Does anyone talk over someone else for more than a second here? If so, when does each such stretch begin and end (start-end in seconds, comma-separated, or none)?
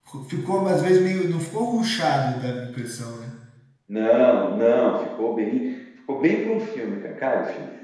none